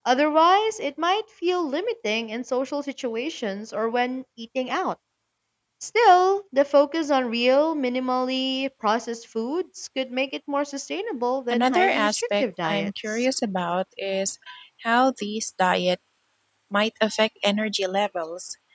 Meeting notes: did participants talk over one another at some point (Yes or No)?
Yes